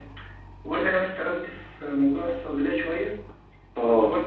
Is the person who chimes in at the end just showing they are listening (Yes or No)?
Yes